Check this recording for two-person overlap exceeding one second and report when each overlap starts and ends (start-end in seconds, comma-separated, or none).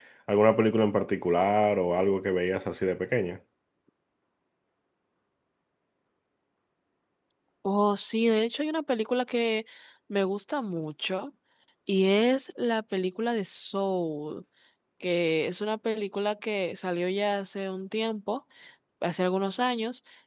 none